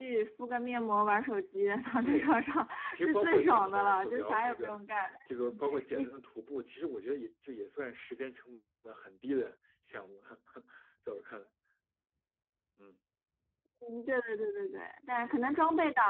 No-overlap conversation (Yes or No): No